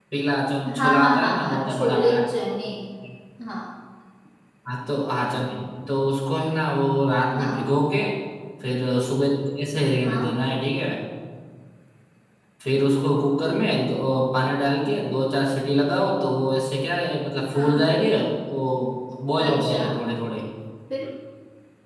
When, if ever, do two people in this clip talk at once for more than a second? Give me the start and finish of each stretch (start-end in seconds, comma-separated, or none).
0.8-2.2